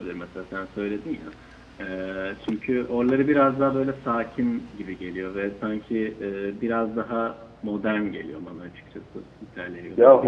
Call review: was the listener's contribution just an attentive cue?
No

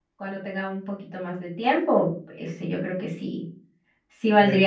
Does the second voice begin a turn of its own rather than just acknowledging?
No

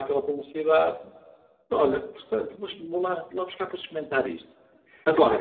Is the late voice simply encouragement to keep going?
No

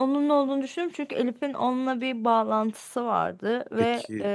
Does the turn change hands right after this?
No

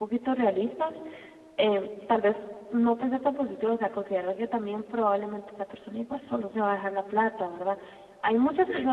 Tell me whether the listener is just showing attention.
Yes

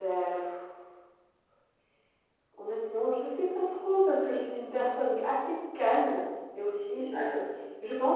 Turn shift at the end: No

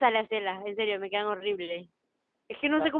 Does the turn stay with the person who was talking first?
Yes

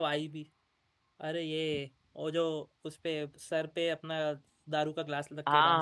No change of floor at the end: No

